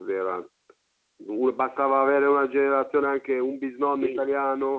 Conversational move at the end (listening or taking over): taking over